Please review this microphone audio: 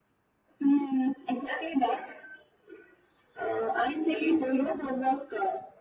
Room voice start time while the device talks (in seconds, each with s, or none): none